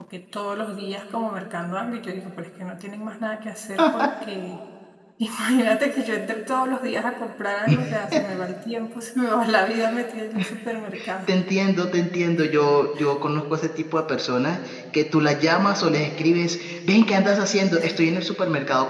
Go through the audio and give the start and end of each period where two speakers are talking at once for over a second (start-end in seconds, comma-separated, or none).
none